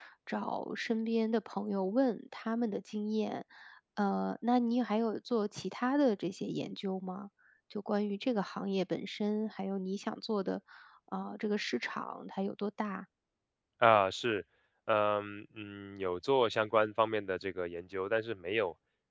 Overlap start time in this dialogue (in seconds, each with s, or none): none